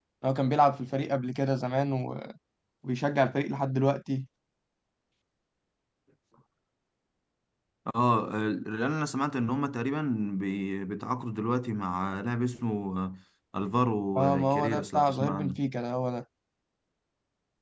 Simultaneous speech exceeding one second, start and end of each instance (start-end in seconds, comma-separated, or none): 14.2-15.6